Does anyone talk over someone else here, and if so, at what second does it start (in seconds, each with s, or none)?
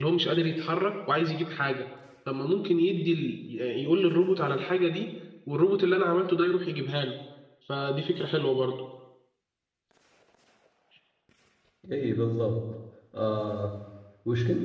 none